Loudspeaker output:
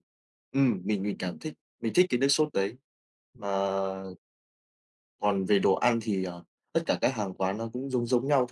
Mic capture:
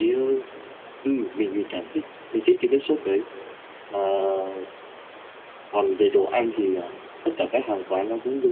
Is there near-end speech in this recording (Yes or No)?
No